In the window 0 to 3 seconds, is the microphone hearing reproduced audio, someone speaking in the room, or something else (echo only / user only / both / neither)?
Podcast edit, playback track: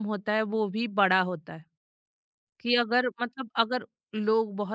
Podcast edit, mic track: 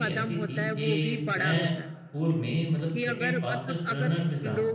both